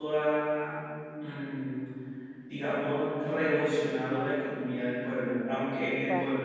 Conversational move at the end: listening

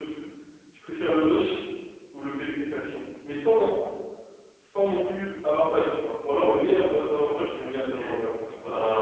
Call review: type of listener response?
taking over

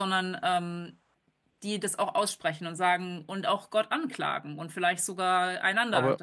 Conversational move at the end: taking over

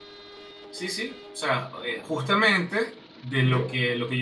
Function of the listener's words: listening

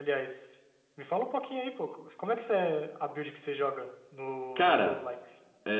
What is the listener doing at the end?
taking over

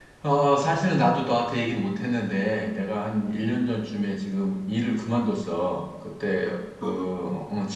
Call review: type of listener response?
listening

